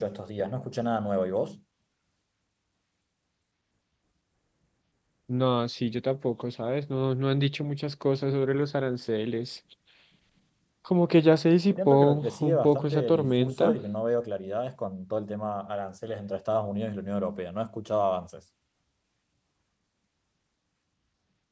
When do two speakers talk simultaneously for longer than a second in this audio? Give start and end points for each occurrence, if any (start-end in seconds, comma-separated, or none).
11.8-13.8